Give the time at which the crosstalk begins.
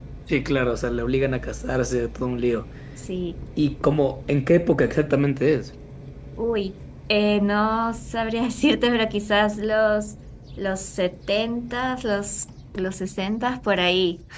none

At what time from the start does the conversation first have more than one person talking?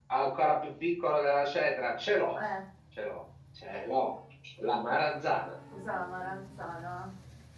none

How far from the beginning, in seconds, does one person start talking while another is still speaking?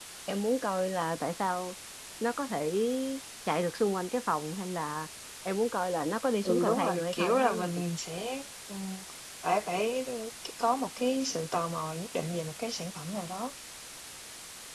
6 s

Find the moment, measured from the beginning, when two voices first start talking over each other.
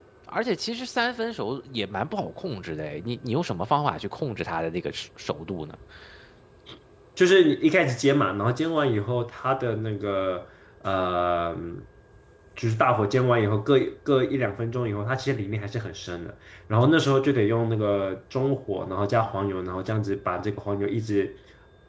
none

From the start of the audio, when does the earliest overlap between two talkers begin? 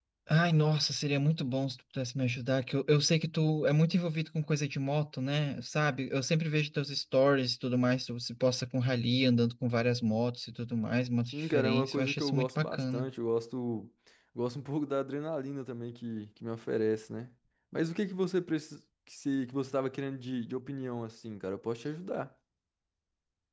11 s

